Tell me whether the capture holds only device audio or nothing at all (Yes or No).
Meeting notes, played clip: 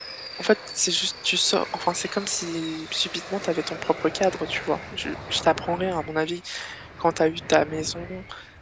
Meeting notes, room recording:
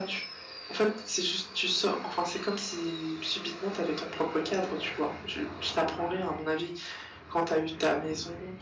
Yes